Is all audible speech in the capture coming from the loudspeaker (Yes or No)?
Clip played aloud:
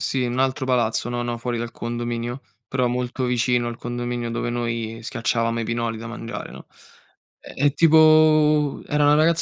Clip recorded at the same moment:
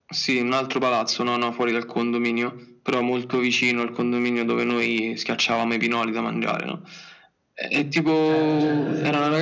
No